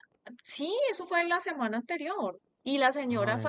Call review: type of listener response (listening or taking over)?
listening